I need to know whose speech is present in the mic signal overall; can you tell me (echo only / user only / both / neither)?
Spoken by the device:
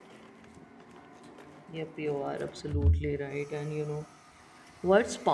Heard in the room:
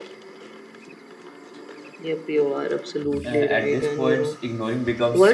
both